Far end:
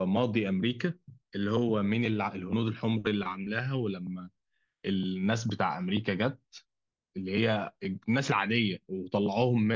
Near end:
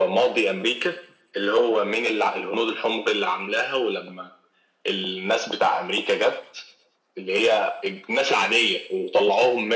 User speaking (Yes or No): No